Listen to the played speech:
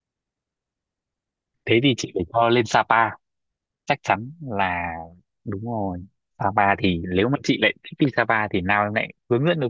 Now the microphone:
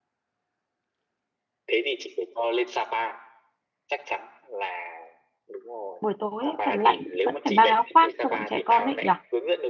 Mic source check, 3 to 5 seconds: echo only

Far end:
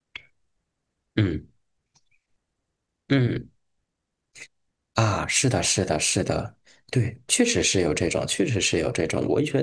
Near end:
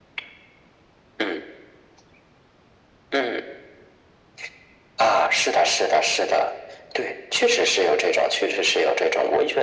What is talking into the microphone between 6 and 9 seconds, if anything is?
echo only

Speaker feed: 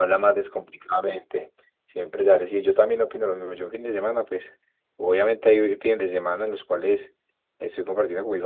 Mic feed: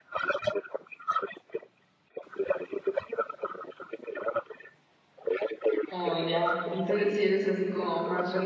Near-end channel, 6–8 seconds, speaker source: both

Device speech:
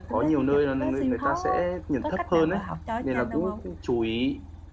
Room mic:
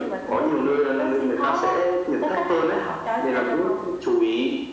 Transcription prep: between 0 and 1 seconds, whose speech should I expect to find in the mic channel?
echo only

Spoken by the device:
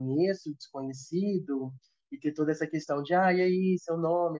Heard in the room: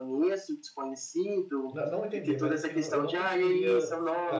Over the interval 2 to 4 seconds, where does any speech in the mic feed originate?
both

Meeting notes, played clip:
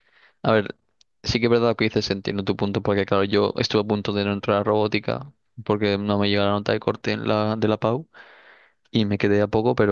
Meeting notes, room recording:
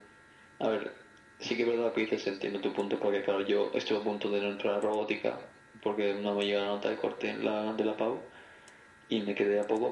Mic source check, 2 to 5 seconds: echo only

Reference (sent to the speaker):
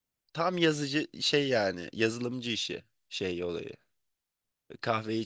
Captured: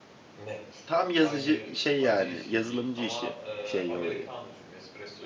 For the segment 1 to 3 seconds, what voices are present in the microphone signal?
both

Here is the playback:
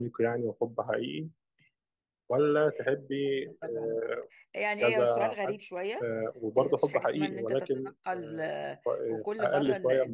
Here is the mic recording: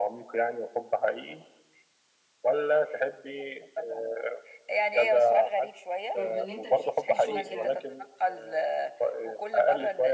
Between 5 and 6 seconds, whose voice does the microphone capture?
echo only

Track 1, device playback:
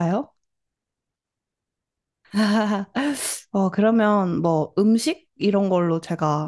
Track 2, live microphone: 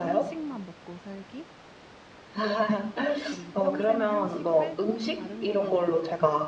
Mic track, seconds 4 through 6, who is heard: both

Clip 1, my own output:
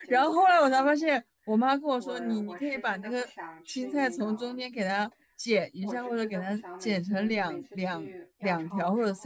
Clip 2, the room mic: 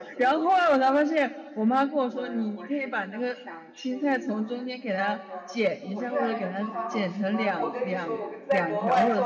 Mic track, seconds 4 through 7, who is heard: both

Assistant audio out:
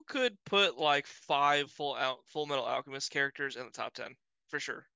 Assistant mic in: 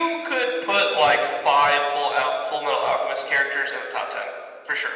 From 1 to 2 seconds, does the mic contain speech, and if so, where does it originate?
echo only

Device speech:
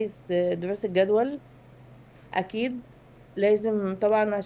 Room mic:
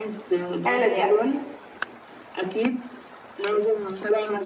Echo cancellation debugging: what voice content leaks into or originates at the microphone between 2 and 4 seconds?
echo only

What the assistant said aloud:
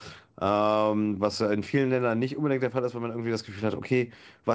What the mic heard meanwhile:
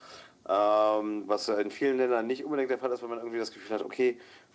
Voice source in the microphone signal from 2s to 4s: echo only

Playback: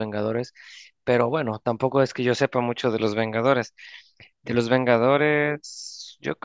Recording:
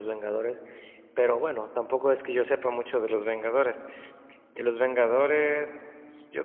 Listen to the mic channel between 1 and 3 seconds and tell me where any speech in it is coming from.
echo only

